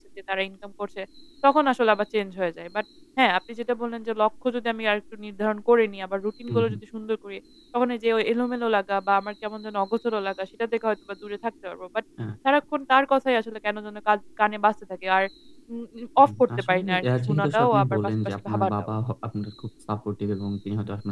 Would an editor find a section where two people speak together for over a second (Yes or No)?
Yes